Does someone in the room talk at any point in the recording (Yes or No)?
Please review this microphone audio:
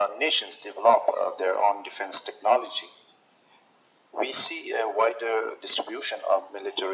No